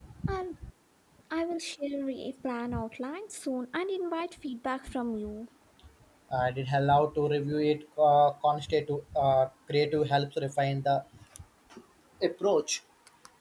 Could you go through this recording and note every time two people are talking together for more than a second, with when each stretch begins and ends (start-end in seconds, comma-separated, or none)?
none